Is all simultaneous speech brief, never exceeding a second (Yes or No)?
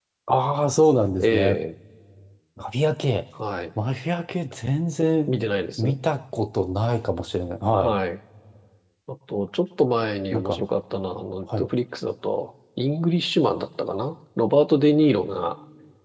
Yes